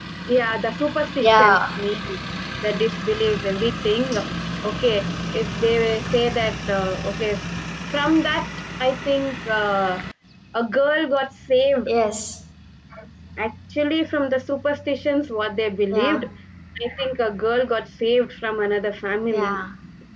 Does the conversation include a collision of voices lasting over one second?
No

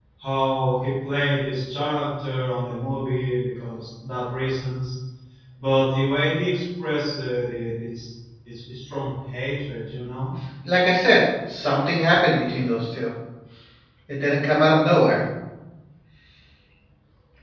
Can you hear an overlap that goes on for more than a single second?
No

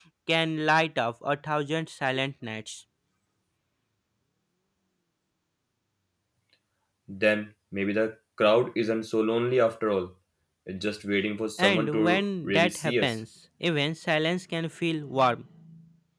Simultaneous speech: Yes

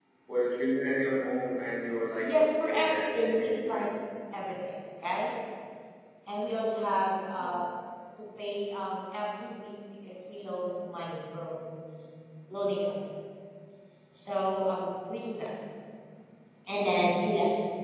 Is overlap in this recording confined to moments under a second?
No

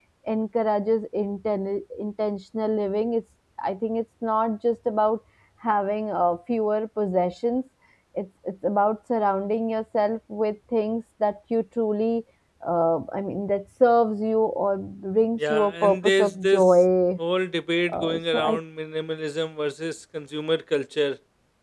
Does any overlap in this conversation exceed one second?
Yes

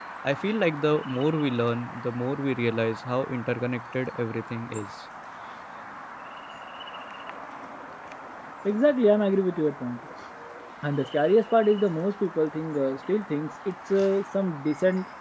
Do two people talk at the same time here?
No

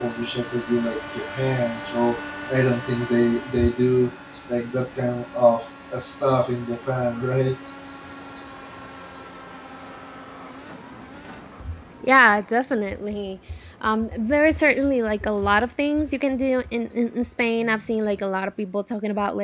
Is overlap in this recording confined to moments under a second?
Yes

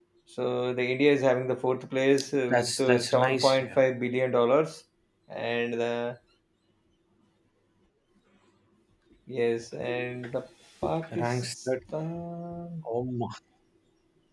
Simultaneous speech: Yes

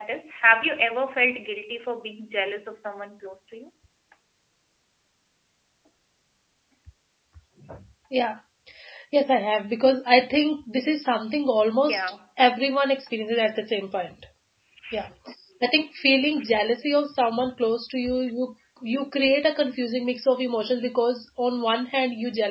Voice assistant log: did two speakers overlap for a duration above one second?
No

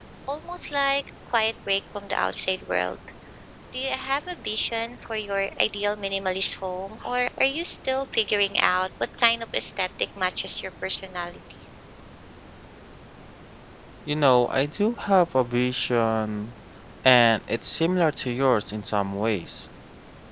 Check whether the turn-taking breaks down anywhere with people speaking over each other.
No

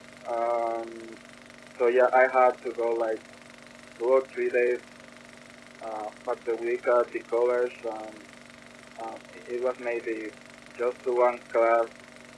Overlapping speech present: No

